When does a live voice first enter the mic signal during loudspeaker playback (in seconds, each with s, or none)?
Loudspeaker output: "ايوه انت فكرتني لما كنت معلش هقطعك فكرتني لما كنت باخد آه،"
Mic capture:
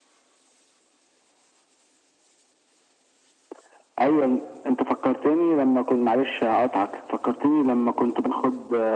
none